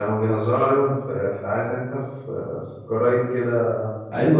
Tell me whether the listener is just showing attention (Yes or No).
No